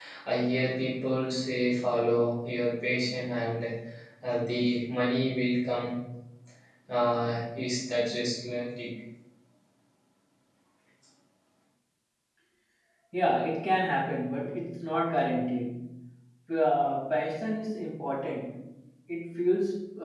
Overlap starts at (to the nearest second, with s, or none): none